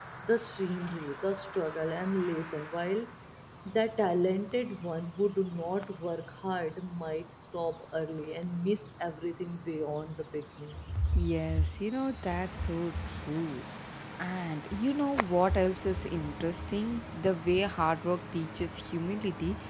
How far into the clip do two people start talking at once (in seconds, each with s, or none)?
none